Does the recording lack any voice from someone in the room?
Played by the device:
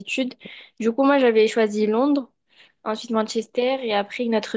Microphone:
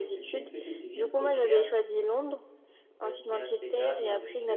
No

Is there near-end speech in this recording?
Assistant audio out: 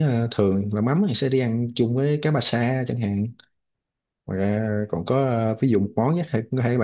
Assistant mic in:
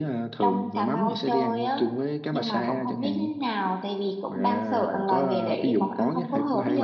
Yes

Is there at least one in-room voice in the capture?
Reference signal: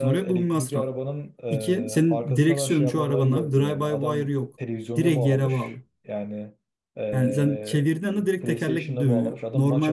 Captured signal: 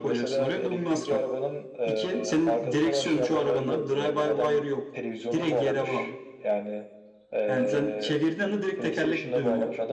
No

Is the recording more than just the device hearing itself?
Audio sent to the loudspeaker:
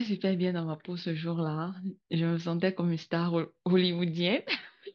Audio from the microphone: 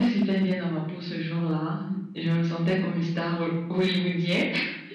No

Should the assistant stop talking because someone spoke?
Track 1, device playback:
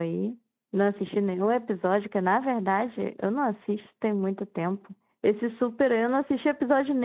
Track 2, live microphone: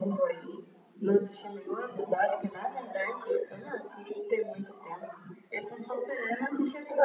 No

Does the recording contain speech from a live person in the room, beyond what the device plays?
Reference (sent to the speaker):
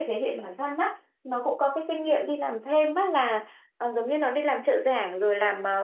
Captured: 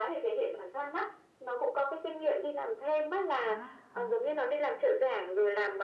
Yes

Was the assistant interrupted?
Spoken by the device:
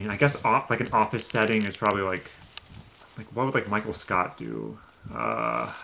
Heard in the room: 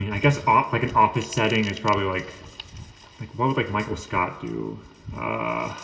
No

